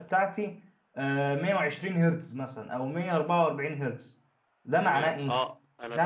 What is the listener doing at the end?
taking over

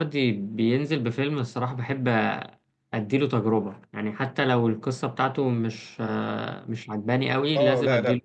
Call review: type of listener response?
taking over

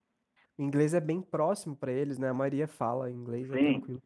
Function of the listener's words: taking over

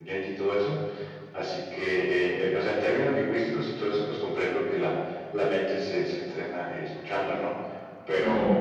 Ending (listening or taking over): listening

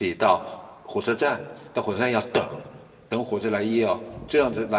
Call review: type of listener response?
listening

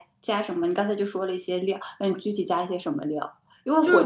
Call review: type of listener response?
listening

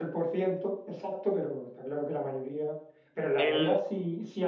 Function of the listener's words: listening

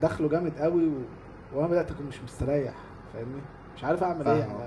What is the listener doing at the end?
taking over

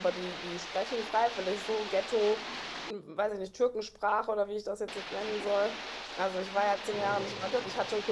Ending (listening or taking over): listening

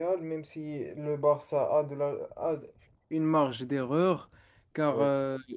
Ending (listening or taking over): listening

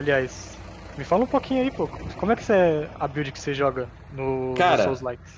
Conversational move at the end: taking over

